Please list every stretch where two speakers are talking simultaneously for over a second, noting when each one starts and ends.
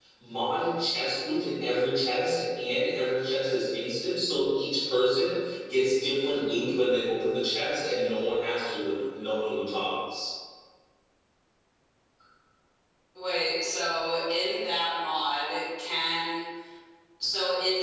none

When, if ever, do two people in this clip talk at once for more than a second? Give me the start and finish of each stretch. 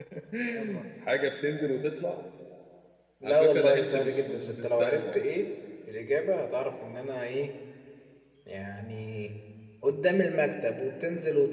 3.2-5.2

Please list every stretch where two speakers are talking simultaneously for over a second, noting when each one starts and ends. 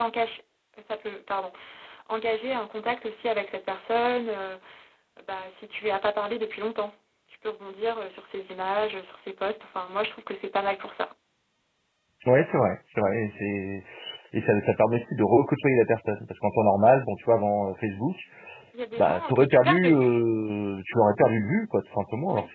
19.0-20.2

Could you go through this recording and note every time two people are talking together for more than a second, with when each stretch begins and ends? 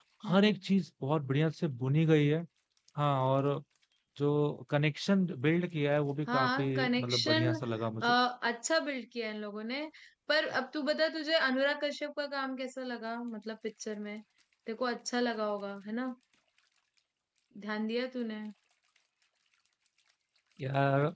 6.3-7.5

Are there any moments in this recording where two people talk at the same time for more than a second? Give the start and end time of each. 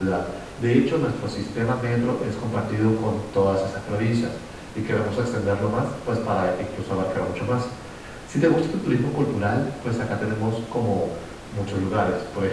none

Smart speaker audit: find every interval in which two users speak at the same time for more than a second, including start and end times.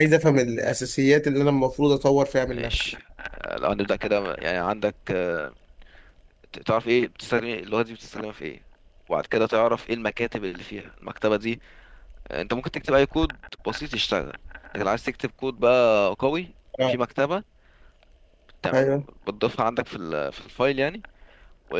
none

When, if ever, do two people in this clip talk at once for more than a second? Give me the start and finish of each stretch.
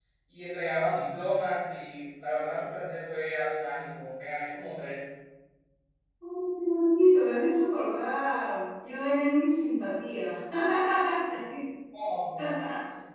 none

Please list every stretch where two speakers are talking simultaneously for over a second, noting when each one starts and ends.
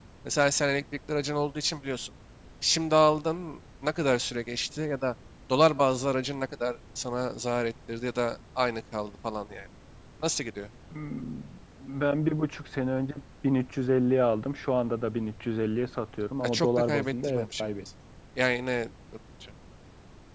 16.4-17.7

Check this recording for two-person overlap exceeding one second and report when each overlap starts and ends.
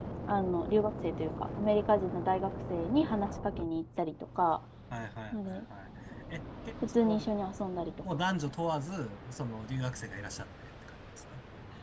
none

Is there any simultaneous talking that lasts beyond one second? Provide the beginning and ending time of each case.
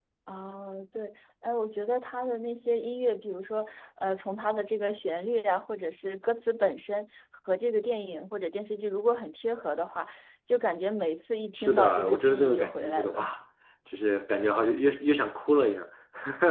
11.5-13.3

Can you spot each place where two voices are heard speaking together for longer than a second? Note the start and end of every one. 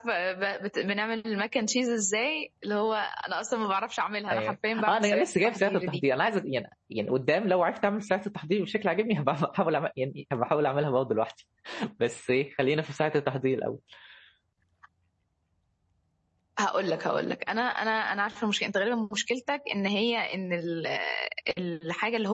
4.3-6.0

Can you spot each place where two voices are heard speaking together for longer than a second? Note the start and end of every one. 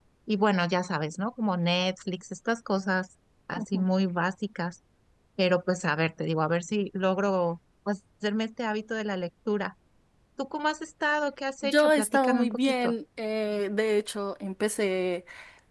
11.6-12.9

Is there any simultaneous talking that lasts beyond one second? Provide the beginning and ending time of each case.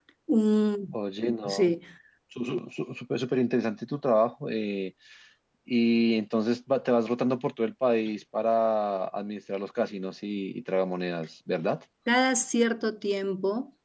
none

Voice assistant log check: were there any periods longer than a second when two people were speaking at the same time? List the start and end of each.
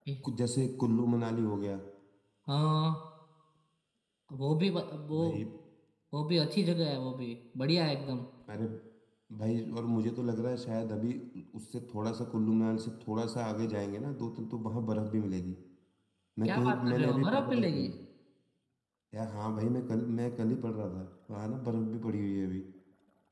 16.4-17.9

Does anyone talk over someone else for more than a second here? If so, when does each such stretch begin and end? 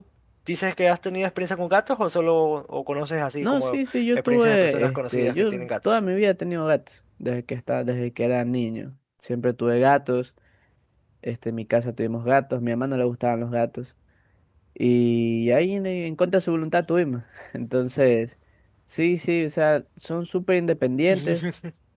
3.4-6.0

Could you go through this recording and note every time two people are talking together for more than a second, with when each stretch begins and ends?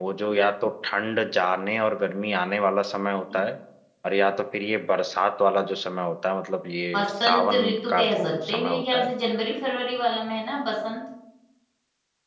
6.9-9.1

